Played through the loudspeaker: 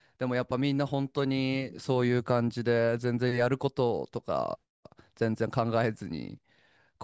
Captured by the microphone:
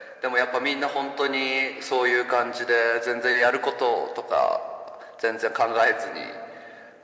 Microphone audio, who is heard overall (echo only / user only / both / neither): echo only